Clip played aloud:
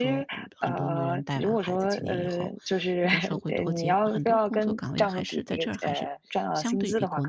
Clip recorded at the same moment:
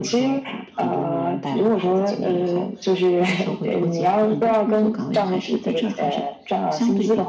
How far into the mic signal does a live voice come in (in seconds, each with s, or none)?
none